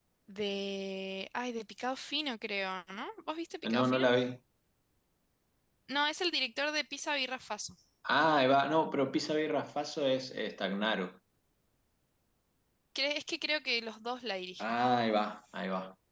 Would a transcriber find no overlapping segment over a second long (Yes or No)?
Yes